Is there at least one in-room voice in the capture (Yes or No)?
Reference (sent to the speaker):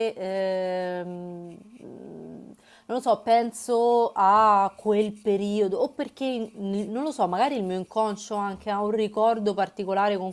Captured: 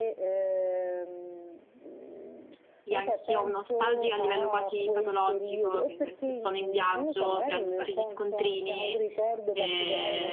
Yes